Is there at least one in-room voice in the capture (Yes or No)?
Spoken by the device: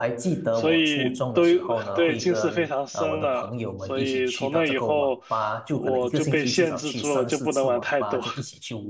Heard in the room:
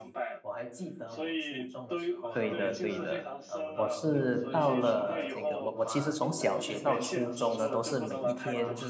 Yes